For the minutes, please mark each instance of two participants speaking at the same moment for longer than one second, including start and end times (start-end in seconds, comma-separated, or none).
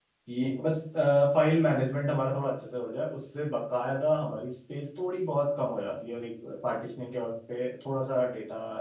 none